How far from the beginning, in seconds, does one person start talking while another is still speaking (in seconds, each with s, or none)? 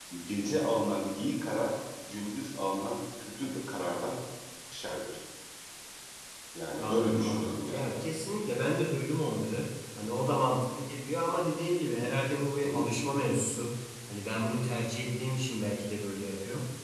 6.8 s